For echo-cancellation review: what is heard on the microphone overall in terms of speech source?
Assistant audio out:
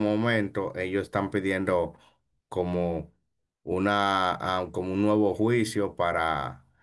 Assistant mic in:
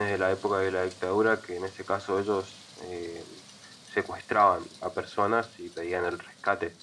user only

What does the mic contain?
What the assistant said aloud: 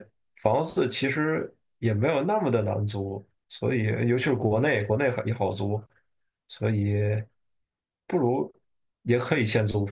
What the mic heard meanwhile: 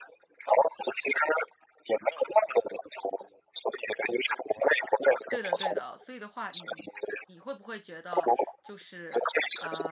both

